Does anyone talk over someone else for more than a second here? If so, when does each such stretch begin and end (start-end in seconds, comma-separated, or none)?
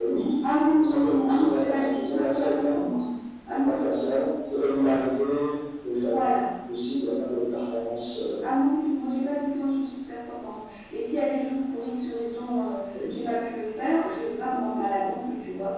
0.7-2.8